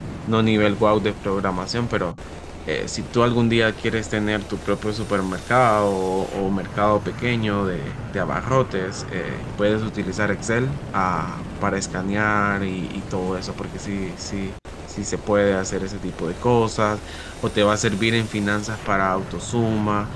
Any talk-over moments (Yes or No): No